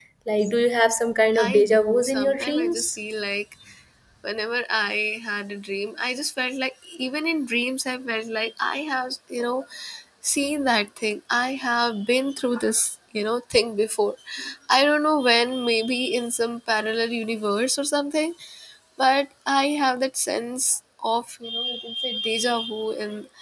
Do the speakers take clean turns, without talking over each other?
No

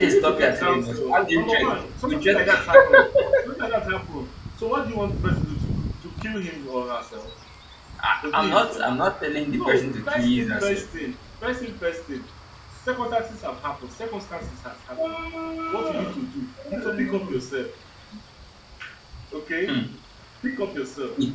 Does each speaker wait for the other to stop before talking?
No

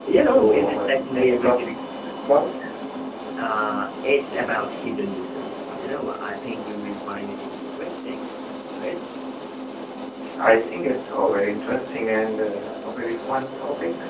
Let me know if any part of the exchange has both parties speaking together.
Yes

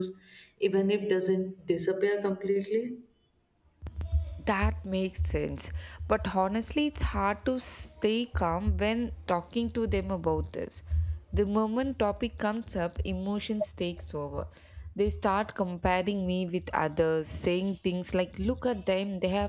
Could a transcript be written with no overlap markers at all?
Yes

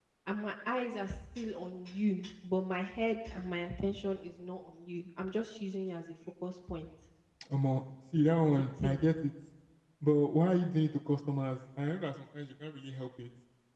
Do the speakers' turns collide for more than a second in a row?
No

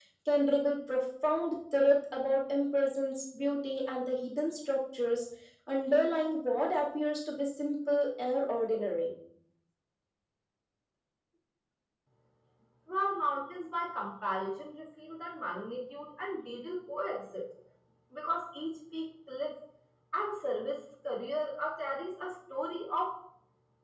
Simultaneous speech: No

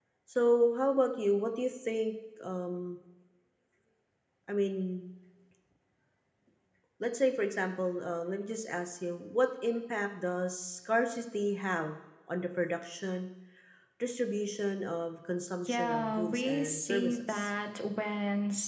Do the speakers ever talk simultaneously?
Yes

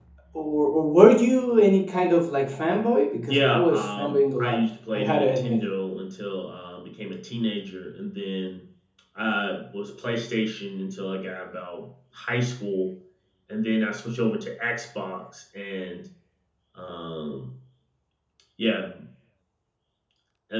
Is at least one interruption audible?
Yes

